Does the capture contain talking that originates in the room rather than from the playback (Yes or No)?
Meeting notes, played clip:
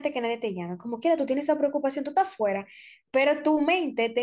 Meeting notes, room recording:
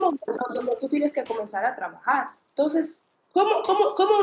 Yes